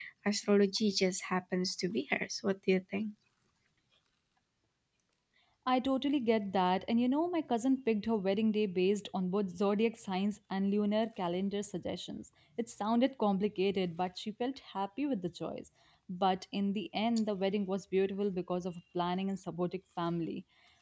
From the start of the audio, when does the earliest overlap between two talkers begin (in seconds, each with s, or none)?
none